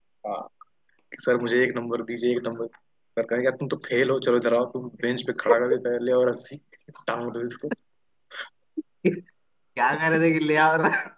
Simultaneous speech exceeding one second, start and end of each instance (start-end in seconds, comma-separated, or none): none